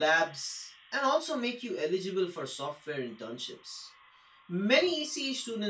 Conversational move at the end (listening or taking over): listening